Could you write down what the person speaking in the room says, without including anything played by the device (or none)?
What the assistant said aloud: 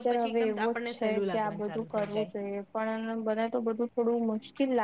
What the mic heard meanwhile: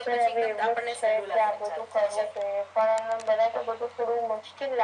none